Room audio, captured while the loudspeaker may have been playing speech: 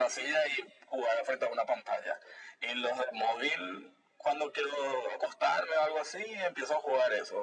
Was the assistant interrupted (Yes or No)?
No